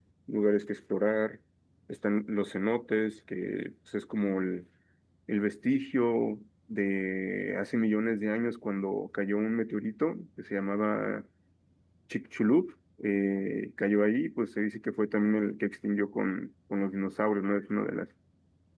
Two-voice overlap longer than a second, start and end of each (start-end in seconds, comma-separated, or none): none